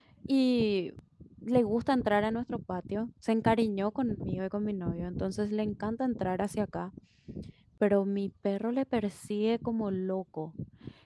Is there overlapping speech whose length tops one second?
No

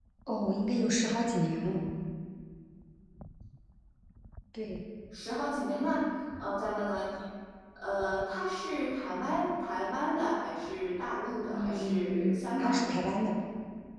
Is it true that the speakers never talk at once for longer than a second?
No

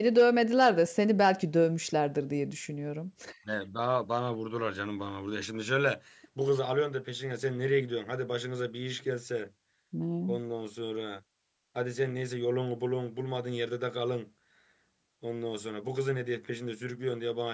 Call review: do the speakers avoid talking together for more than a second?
Yes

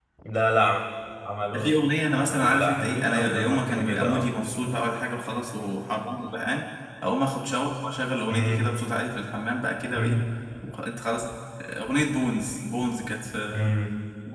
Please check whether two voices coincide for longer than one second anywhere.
Yes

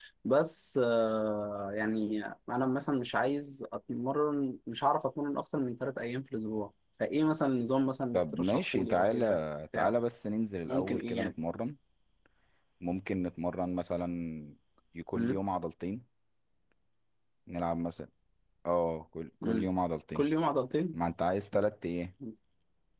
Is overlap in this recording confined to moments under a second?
No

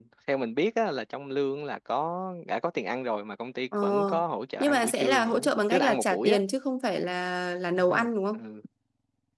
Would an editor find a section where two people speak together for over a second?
Yes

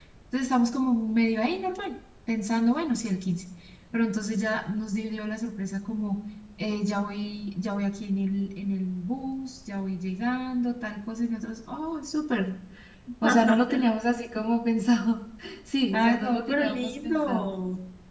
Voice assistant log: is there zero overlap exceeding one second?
No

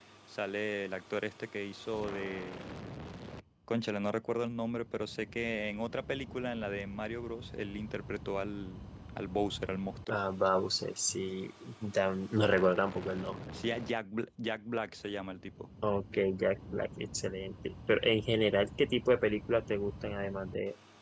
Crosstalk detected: No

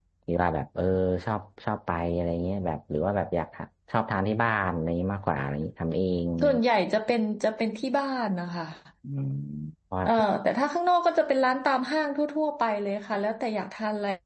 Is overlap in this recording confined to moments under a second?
Yes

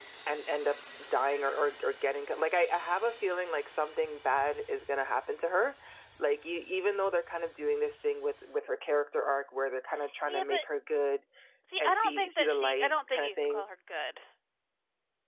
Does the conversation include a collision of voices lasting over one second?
Yes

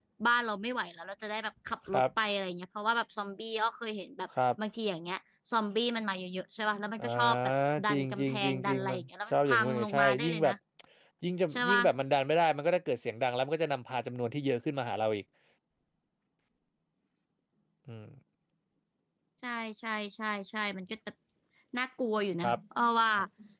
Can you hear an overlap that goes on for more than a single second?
Yes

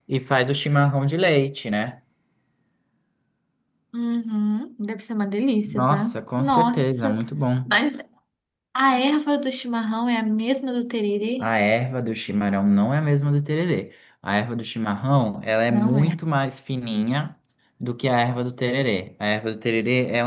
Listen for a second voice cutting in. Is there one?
Yes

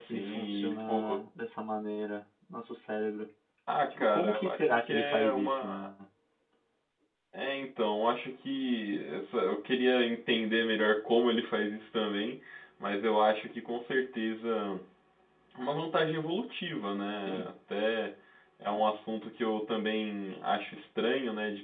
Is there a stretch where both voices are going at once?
Yes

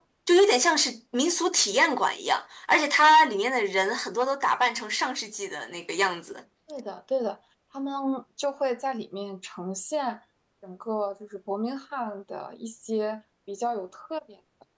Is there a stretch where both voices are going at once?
No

